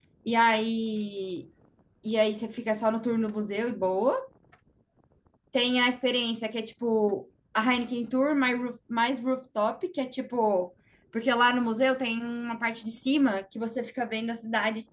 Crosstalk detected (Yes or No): No